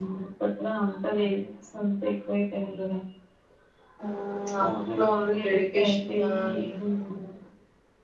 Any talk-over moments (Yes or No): Yes